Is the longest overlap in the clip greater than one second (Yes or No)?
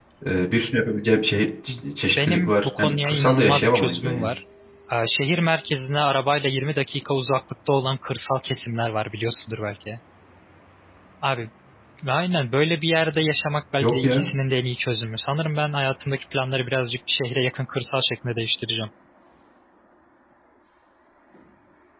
Yes